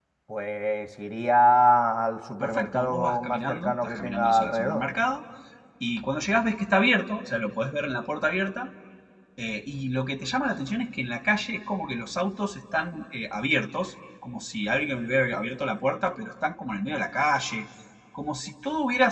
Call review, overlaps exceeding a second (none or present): present